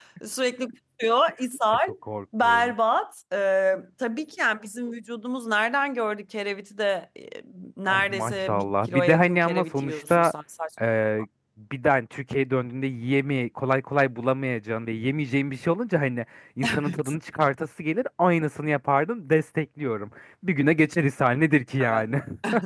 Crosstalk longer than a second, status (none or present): present